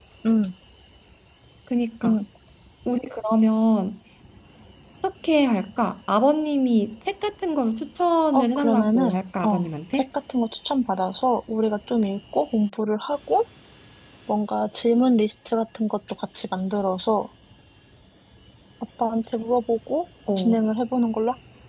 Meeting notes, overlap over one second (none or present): present